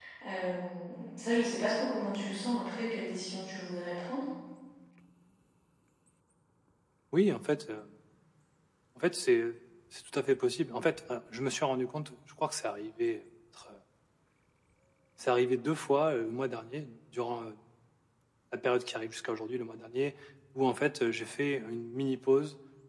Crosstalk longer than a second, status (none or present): none